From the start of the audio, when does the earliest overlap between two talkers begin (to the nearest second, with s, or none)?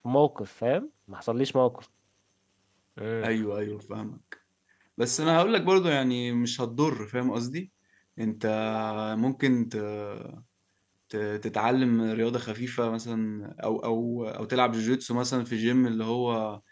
none